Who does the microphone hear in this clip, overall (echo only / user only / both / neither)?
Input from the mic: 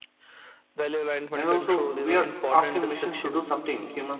both